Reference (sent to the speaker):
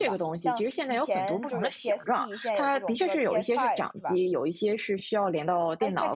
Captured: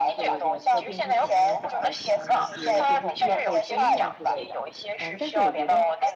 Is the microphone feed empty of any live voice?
No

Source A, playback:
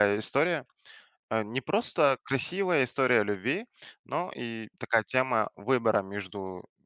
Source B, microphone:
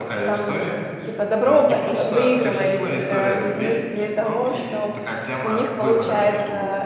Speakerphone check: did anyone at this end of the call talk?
Yes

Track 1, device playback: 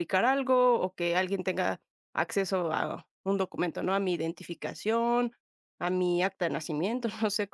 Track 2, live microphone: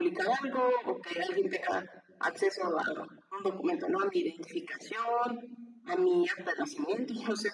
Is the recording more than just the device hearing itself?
No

